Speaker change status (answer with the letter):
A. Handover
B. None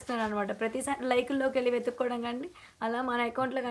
B